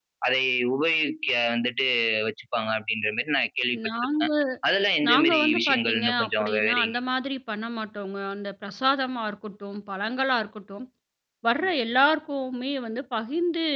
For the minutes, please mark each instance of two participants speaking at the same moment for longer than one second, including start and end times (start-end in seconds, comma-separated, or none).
5.1-7.0